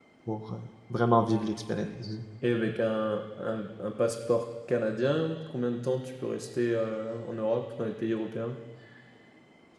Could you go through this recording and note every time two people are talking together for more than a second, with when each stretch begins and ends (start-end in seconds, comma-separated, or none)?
none